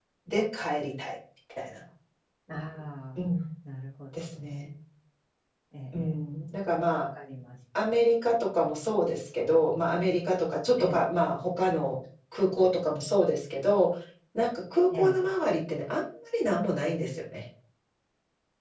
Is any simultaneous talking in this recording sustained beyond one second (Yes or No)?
No